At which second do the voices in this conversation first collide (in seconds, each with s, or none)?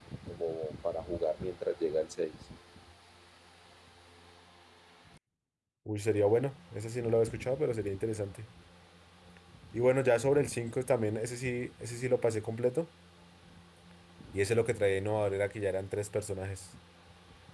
none